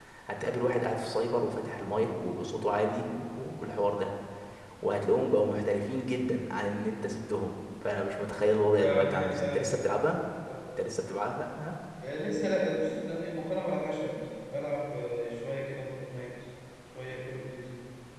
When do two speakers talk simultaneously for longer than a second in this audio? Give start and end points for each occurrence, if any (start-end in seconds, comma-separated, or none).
8.8-10.0